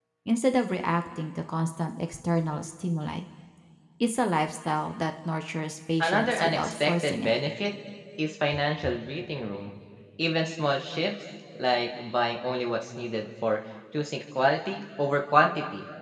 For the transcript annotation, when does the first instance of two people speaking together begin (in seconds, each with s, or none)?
6.0 s